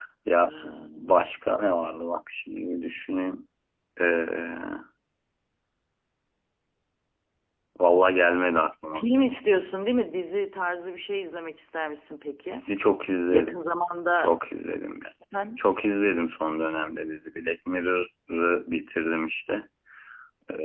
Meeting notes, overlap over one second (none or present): none